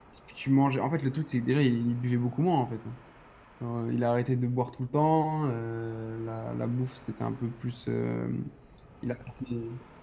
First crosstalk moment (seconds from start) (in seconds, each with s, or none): none